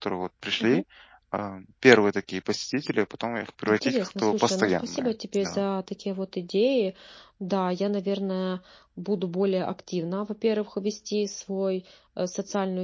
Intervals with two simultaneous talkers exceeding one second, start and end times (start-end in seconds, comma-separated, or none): 3.7-5.6